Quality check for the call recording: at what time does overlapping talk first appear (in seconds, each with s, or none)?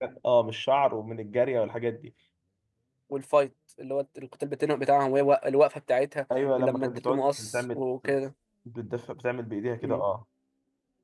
6.6 s